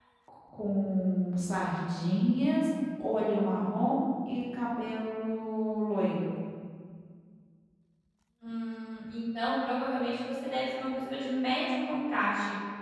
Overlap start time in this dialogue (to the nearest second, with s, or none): none